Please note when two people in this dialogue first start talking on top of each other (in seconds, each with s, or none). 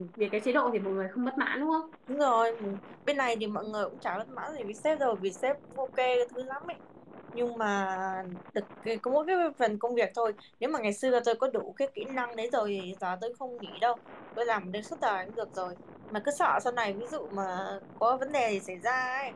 none